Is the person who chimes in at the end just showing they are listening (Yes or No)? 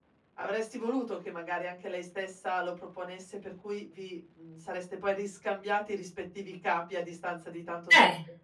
No